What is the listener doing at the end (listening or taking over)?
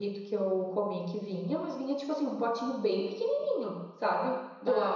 taking over